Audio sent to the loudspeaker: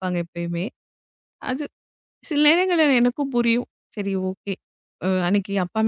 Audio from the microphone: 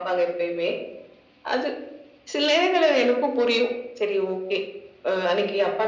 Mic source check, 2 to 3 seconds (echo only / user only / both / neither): echo only